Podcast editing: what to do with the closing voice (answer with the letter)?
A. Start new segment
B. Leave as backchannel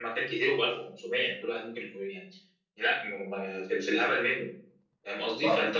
B